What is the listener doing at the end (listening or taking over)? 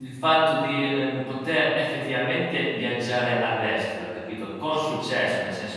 listening